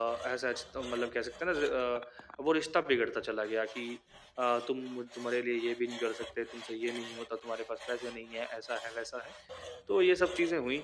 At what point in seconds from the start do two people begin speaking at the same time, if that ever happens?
none

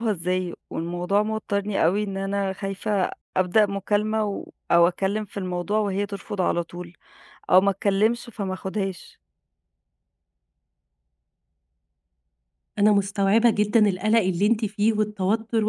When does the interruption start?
none

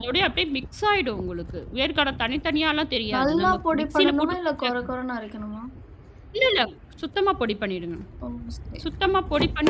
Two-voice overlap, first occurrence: 3 s

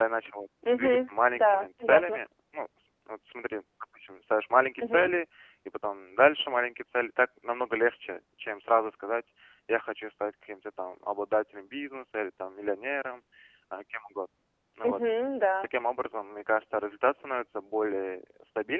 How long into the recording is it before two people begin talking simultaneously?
1 s

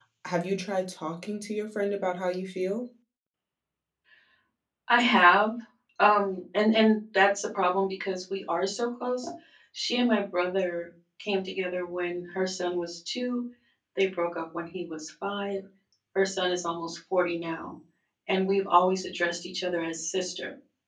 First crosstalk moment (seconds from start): none

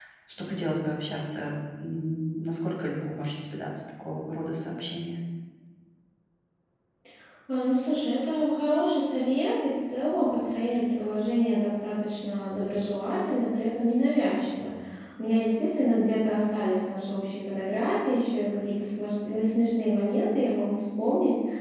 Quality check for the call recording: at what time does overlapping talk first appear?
none

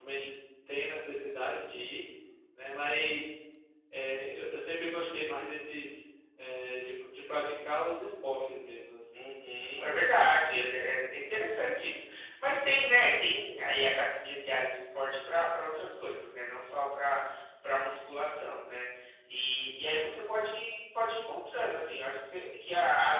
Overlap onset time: none

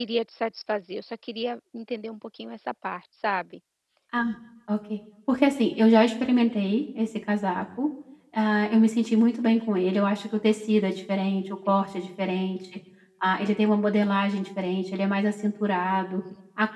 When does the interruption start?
none

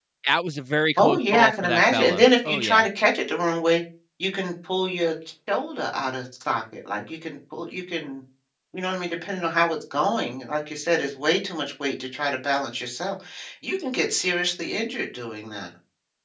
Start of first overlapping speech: 1 s

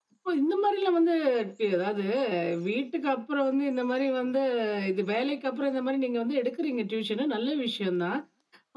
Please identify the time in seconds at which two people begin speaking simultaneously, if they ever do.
none

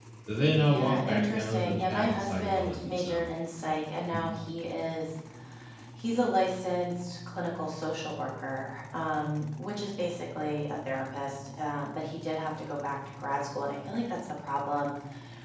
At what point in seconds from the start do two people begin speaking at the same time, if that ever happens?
1 s

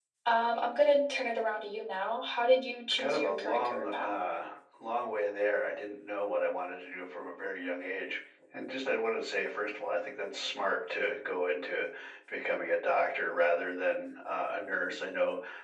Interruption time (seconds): 3 s

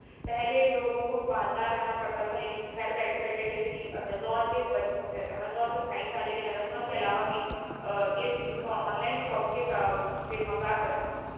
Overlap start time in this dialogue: none

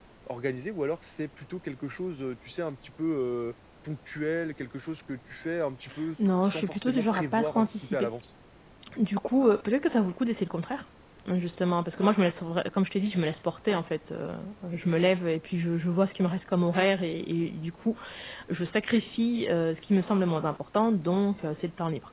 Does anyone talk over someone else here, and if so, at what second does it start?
7 s

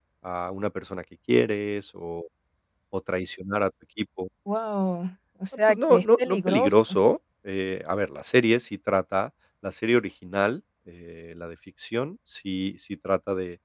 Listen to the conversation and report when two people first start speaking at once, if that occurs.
6 s

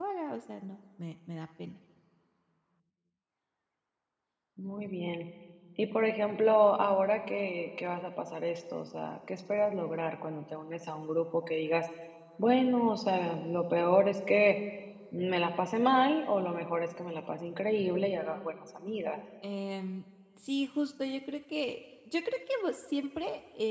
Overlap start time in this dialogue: none

